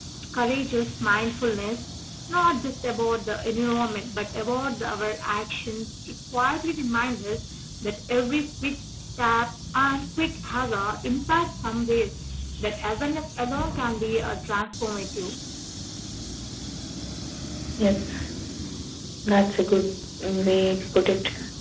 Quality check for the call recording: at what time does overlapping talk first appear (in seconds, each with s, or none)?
none